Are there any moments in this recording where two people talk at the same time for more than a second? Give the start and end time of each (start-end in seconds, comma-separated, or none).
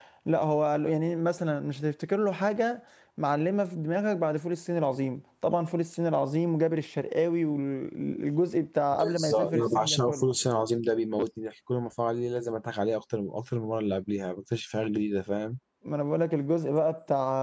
8.9-10.2